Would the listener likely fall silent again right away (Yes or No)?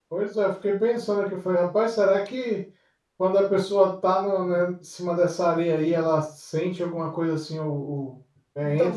No